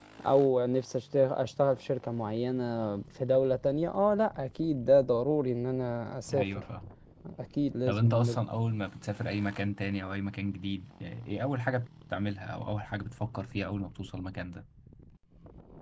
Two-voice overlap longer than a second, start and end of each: none

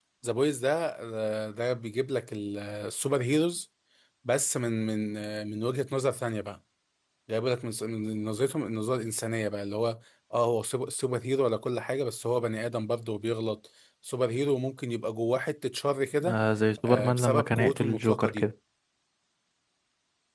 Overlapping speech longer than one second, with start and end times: 16.9-18.4

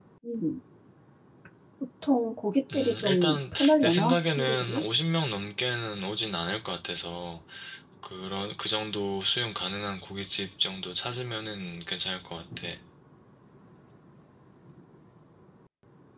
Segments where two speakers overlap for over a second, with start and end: 2.7-4.8

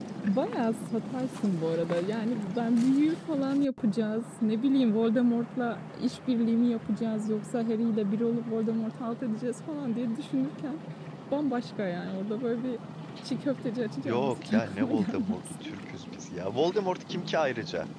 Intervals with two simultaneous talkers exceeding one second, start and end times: 14.0-15.7

